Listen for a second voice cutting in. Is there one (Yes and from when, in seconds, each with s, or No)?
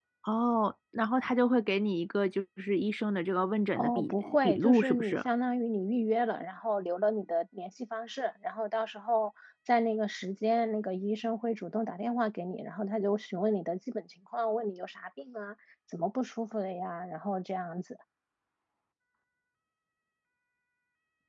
Yes, from 3.8 s